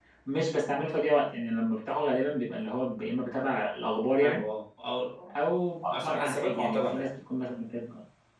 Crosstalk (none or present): present